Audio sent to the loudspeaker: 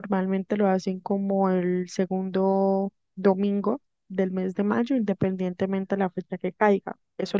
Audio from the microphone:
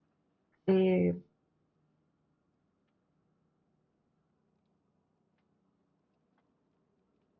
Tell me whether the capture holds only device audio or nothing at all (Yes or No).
No